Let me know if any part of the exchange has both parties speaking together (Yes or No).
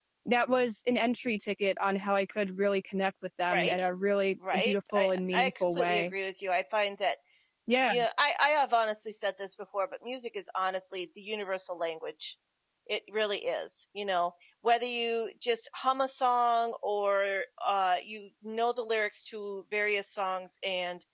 Yes